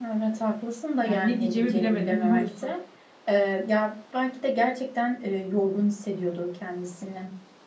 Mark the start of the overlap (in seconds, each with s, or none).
1.0 s